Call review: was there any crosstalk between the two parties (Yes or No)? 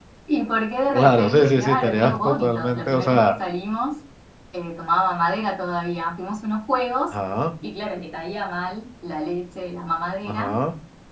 Yes